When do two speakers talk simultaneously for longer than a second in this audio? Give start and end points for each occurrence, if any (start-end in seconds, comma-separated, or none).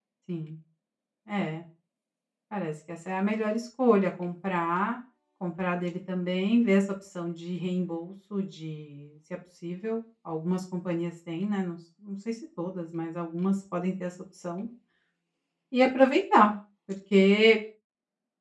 none